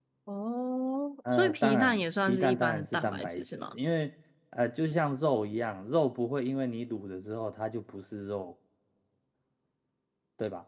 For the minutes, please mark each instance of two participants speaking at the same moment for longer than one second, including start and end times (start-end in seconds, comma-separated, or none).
1.3-3.7